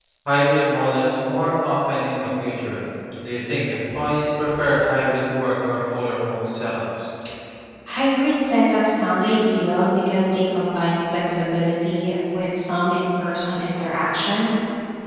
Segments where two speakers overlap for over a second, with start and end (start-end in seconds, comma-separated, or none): none